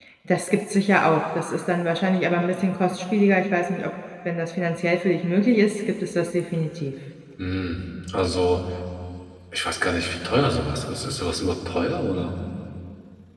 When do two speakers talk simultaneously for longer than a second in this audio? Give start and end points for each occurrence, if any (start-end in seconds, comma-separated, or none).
none